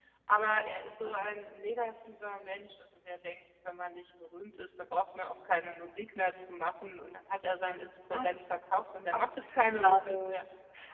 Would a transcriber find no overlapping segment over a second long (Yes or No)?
No